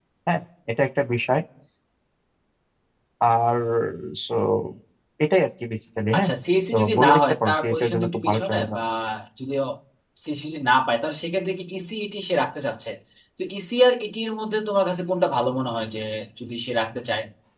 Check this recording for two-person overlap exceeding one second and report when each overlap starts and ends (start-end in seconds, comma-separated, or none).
6.7-8.8